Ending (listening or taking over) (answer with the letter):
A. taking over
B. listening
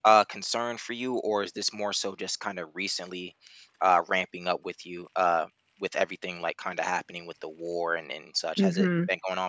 A